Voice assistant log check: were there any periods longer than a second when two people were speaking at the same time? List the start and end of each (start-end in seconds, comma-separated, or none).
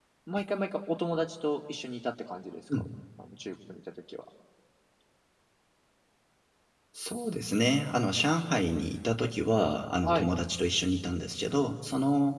none